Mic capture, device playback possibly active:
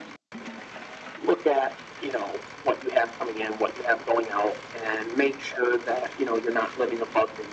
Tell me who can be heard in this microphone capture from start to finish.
echo only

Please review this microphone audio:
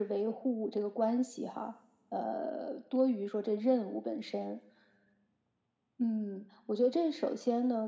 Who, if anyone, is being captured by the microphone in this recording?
echo only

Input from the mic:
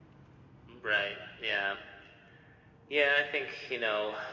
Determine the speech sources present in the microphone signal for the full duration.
echo only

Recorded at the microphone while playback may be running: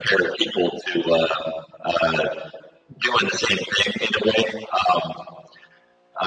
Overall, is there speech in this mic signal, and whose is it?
echo only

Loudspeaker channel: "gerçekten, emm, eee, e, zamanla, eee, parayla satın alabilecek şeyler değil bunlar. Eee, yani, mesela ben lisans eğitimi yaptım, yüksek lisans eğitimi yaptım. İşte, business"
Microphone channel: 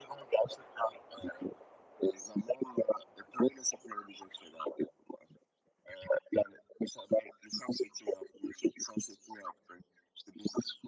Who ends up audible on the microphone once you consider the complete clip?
echo only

